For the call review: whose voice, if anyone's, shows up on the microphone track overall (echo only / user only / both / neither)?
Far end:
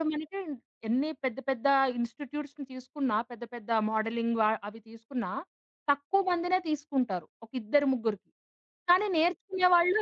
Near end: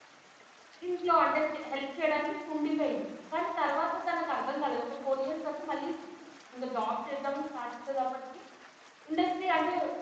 user only